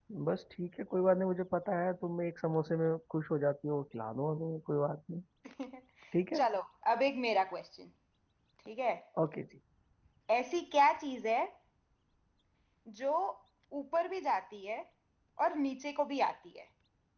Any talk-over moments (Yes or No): No